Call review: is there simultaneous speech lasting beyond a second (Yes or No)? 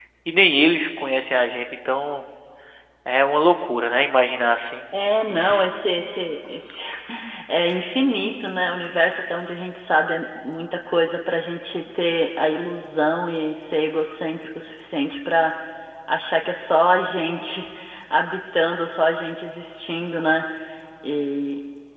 No